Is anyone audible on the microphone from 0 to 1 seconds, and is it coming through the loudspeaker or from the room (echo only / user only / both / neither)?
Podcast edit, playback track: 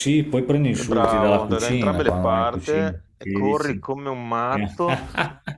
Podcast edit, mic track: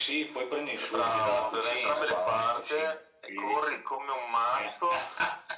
echo only